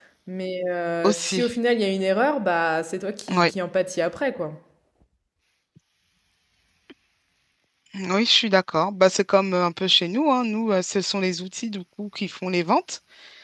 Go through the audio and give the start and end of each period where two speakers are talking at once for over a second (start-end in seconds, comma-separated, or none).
none